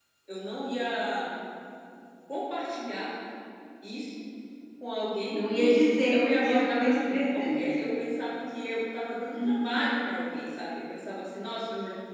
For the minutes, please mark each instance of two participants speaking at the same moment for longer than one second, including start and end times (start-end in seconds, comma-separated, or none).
5.3-7.6